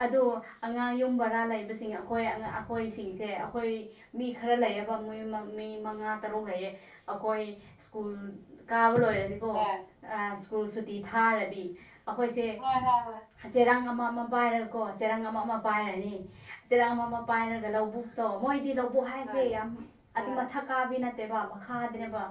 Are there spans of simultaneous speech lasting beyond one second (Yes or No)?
No